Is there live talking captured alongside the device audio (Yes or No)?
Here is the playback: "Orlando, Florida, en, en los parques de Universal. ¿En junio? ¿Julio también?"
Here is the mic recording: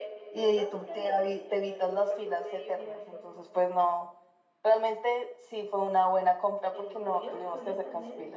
Yes